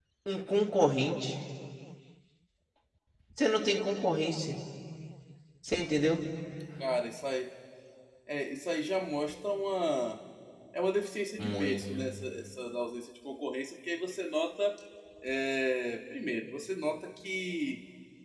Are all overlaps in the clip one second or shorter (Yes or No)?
Yes